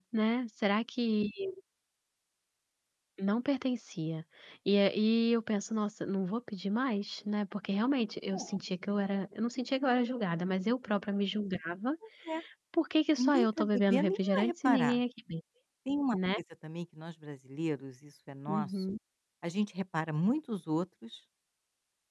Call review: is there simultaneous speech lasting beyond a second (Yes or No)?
Yes